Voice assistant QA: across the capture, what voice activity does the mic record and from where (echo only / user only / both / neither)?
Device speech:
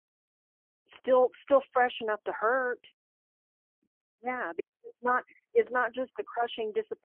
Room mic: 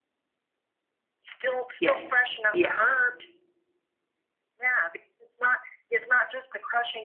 both